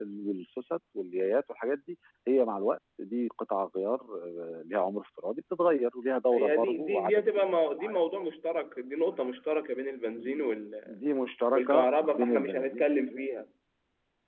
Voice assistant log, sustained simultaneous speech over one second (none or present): present